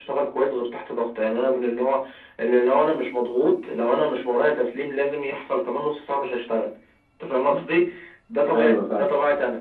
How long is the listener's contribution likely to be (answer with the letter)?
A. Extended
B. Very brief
B